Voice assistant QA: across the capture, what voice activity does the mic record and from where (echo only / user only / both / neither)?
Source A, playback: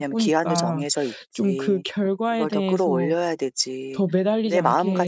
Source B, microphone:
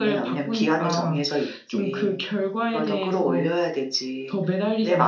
echo only